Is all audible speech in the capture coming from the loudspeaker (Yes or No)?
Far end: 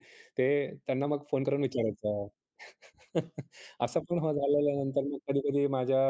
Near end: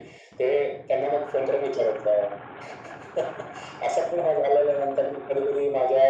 Yes